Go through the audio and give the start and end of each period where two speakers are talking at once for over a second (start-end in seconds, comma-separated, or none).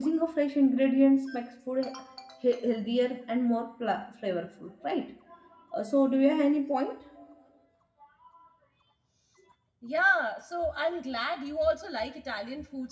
none